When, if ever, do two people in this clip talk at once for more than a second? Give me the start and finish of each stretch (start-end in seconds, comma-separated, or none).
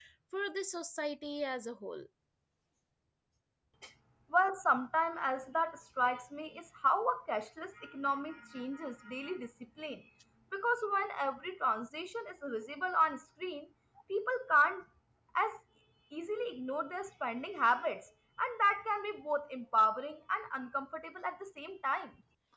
none